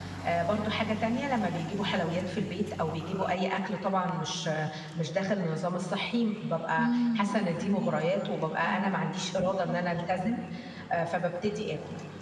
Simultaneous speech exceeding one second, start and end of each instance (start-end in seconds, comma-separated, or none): 6.8-8.1